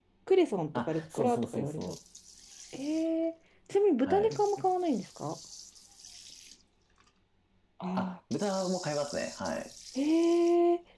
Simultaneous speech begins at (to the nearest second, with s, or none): 1 s